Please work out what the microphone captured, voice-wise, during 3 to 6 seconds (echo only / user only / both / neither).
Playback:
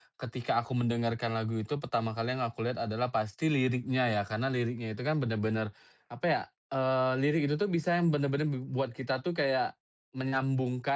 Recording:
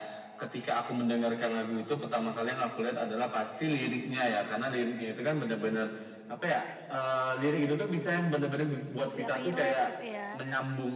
echo only